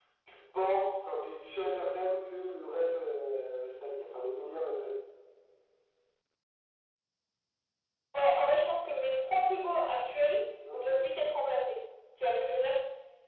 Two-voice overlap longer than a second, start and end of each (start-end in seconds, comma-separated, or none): none